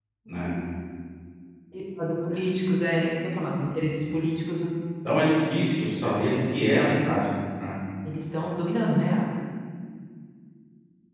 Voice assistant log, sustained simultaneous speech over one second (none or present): none